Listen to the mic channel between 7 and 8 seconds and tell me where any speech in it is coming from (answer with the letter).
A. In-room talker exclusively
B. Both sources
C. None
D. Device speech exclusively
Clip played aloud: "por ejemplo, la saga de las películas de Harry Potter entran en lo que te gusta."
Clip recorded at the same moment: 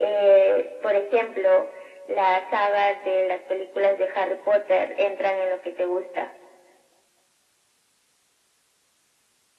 C